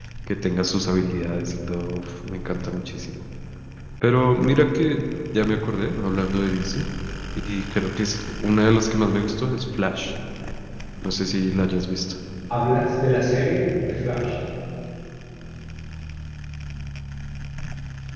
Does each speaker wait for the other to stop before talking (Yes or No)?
Yes